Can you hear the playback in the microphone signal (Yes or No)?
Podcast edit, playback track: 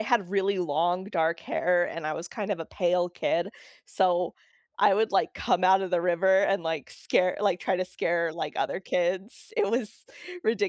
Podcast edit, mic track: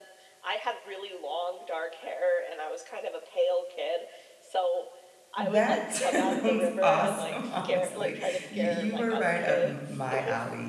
Yes